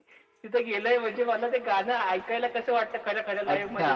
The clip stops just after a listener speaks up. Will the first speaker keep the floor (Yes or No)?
No